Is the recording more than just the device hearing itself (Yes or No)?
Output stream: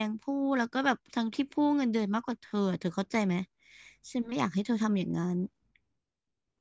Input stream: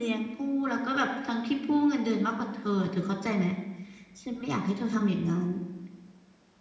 No